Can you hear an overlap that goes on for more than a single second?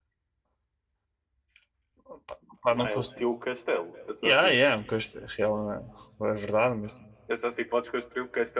No

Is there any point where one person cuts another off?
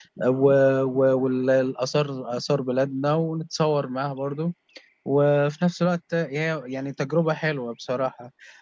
No

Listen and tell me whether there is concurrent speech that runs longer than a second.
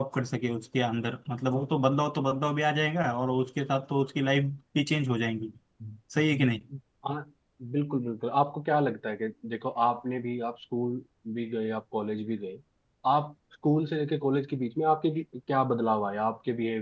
No

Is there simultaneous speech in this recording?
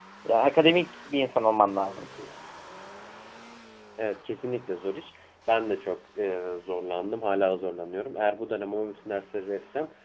No

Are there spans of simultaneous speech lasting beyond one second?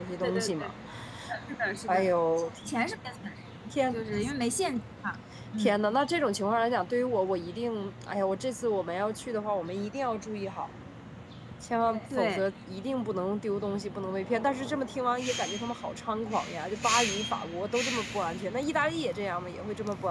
No

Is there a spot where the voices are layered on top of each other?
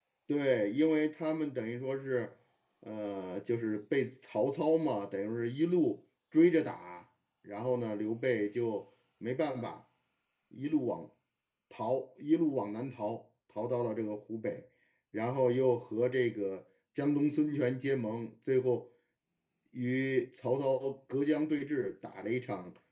No

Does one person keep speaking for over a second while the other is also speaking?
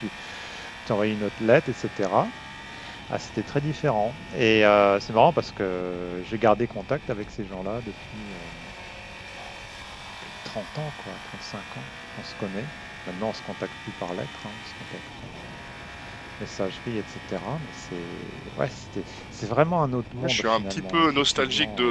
Yes, from 20.1 s

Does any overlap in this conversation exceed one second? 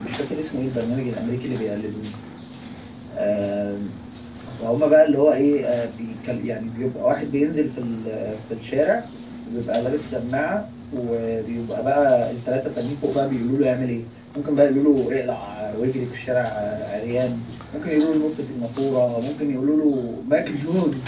No

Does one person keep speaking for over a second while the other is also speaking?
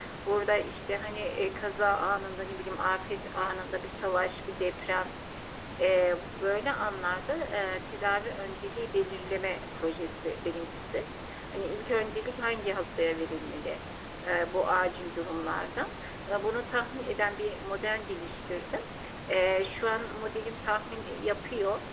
No

